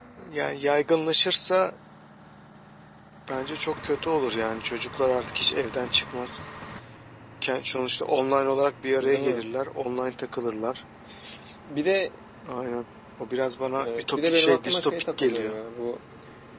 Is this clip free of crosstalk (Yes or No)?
No